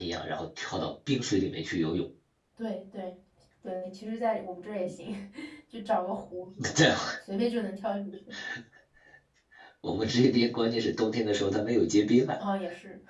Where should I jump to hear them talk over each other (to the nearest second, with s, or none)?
none